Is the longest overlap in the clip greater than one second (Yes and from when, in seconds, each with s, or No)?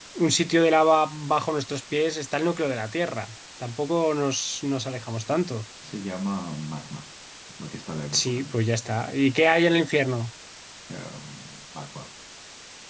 No